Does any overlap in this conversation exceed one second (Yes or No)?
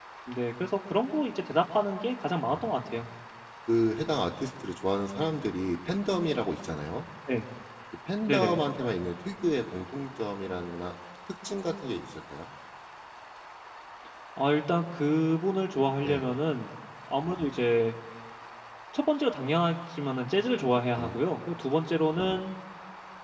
No